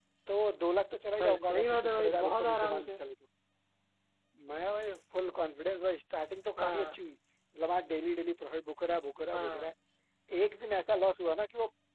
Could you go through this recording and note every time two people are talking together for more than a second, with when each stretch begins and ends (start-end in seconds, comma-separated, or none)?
1.2-3.0